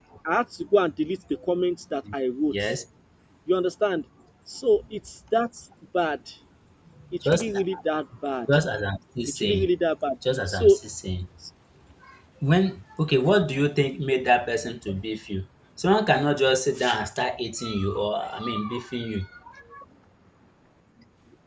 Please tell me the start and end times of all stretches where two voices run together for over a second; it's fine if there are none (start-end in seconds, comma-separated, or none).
none